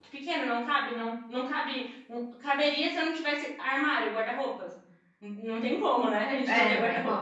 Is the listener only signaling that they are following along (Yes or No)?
No